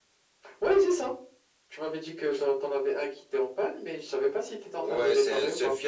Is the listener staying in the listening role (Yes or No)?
No